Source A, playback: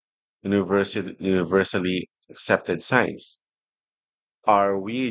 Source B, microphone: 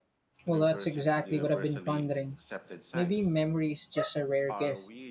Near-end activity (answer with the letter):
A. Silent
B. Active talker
B